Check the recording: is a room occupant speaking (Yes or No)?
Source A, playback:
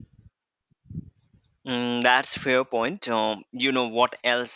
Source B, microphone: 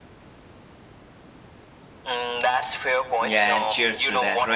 Yes